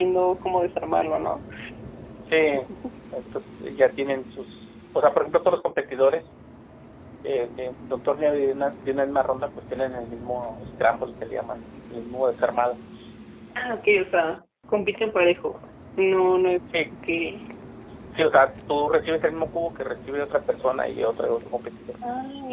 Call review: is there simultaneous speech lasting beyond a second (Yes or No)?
No